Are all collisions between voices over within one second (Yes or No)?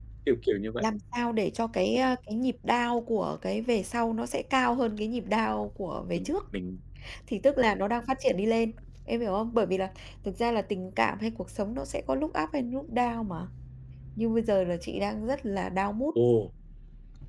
Yes